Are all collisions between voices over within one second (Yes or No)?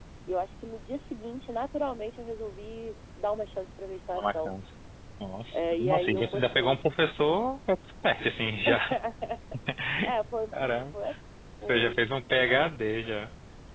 No